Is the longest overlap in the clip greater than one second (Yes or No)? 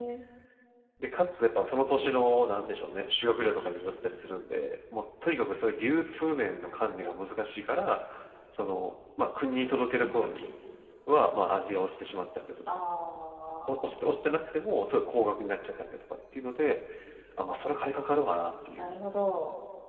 No